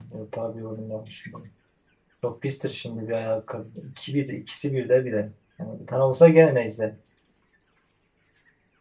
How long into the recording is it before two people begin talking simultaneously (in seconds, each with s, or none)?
none